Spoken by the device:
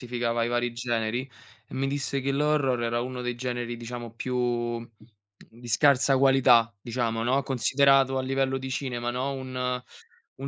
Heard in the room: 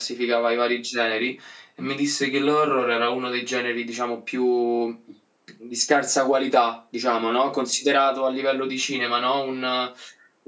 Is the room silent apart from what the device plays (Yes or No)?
Yes